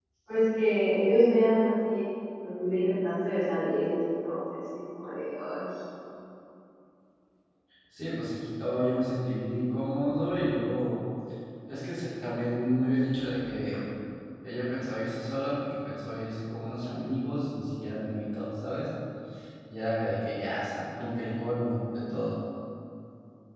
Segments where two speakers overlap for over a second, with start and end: none

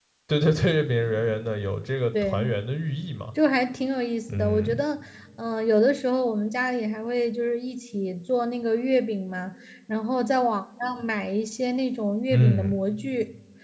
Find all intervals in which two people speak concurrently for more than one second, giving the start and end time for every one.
none

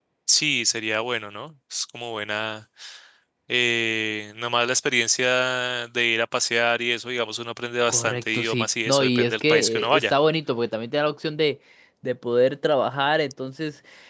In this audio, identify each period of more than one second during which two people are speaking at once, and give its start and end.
7.9-10.1

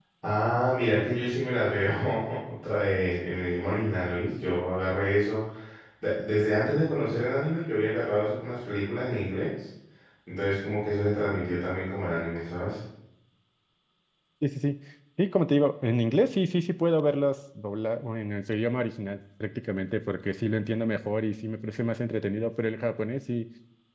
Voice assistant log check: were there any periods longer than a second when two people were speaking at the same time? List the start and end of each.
none

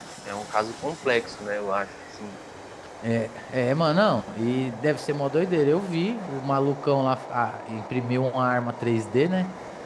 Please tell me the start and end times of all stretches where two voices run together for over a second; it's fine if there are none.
none

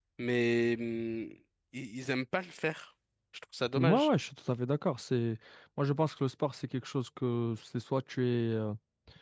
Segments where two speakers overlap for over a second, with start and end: none

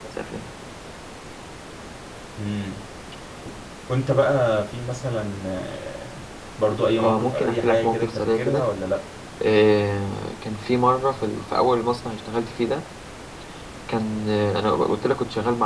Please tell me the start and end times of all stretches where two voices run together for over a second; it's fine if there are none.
7.0-8.6

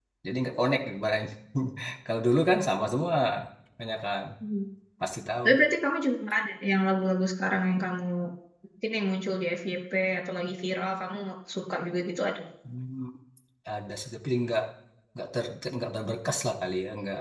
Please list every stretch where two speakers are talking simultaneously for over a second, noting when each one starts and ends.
none

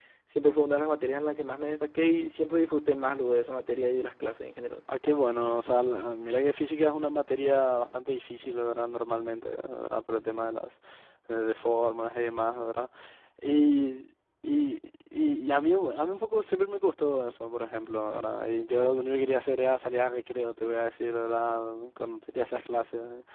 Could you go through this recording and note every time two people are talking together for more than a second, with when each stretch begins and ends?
none

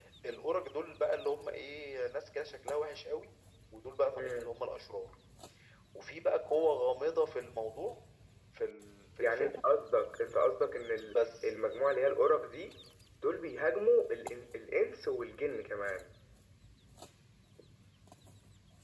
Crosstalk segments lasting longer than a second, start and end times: none

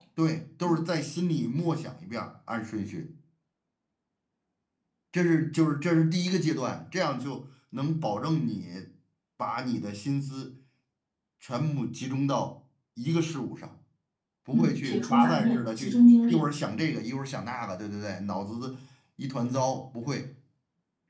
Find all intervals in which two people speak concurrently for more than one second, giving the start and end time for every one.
14.5-16.9

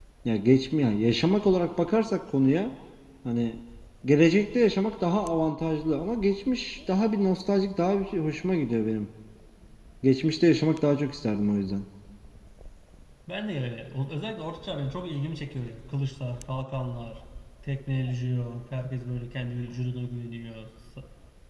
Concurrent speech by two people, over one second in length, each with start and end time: none

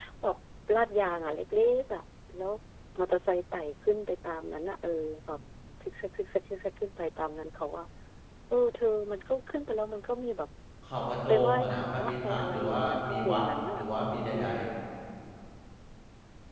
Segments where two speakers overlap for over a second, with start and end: 11.3-13.8

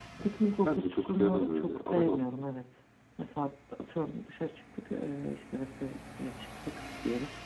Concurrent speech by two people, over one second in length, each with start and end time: 0.6-2.2

